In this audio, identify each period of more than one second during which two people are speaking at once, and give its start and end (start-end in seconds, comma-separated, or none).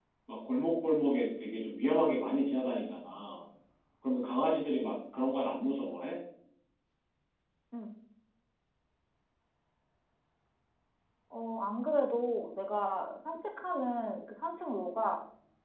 none